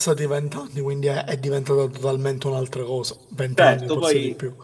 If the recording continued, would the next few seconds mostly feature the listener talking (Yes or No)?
Yes